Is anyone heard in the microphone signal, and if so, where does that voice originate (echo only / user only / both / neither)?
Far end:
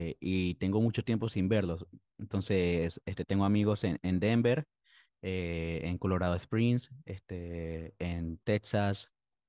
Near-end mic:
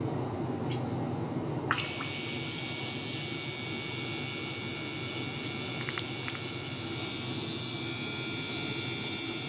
neither